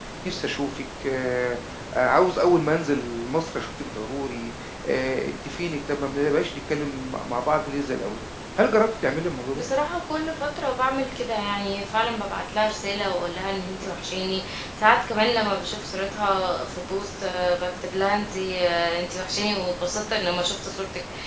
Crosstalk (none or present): none